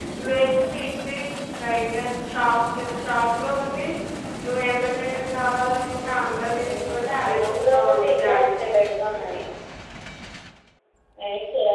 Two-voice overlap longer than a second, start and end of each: 6.6-8.5

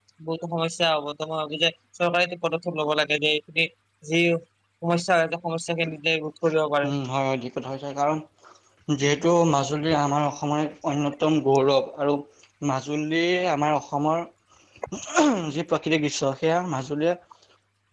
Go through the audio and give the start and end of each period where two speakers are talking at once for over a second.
none

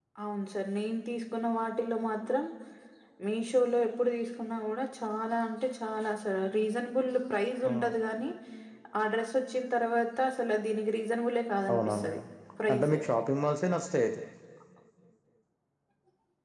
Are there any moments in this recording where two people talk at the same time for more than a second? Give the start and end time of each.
none

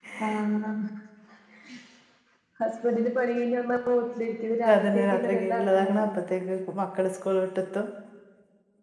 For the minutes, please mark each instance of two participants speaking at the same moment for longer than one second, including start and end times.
4.8-6.1

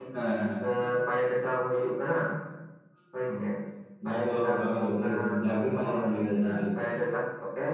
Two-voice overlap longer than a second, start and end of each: 4.0-5.9

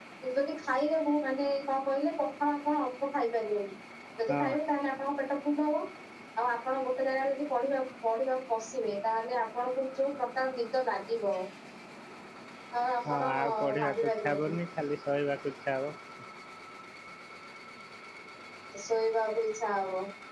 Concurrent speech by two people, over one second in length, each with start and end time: 13.1-14.5

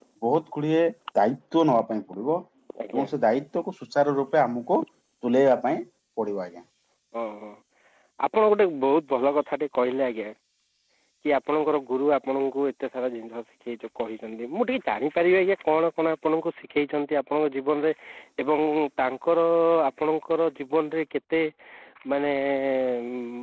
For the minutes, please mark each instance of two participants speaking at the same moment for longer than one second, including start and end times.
none

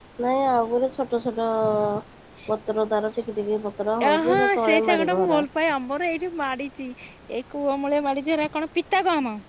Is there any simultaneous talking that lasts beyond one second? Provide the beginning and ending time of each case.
4.0-5.4

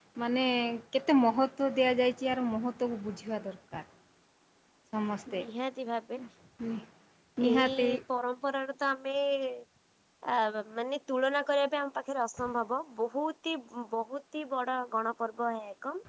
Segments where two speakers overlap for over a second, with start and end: none

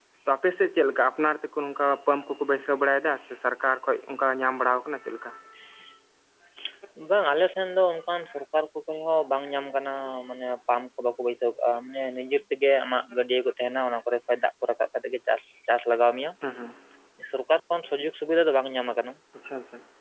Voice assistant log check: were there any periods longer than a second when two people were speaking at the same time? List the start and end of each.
none

